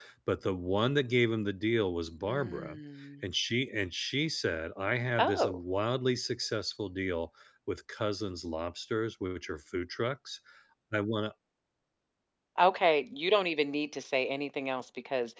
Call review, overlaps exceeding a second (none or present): none